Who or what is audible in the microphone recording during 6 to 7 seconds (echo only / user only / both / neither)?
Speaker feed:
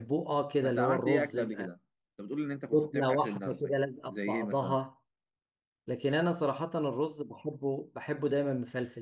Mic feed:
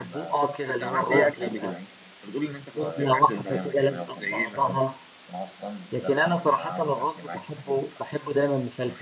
both